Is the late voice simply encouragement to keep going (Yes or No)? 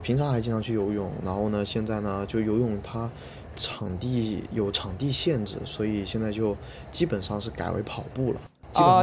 No